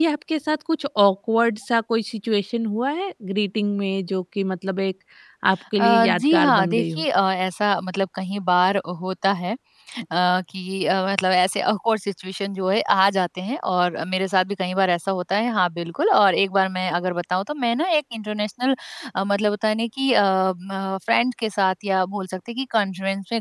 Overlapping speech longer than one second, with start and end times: 5.8-7.0

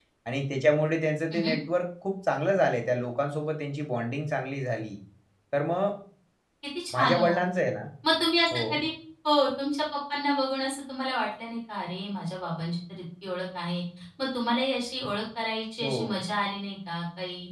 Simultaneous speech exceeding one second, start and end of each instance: none

